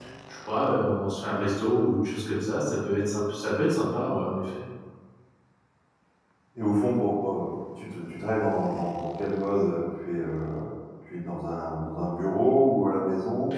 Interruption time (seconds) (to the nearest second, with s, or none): none